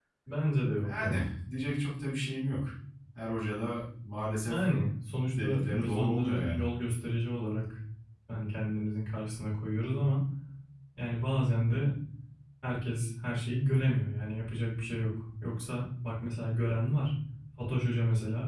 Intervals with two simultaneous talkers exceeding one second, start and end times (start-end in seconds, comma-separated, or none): 5.4-6.7